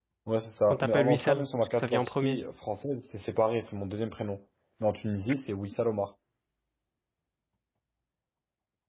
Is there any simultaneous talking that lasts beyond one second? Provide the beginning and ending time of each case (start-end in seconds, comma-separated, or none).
0.7-2.4